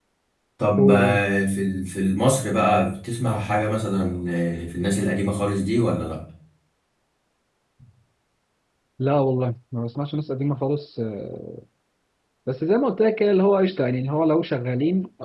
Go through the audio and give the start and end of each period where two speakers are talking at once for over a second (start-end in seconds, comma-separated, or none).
none